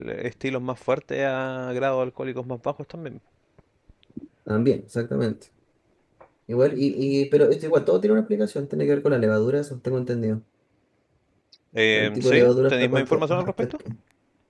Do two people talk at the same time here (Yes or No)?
Yes